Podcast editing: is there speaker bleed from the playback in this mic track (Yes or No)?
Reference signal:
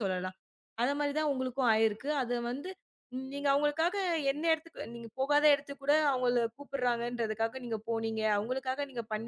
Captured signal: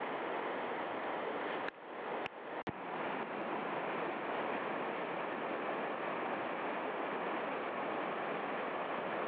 No